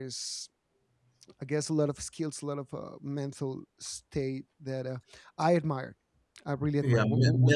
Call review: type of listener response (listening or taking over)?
taking over